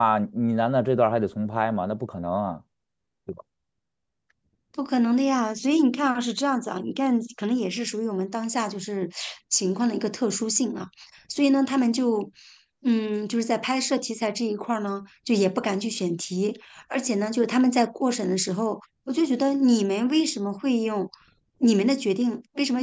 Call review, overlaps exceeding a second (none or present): none